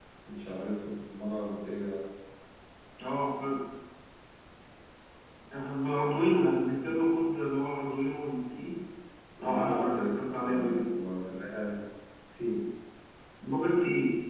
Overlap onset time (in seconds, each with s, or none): 9.4 s